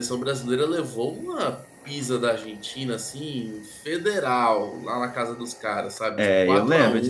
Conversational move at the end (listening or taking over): taking over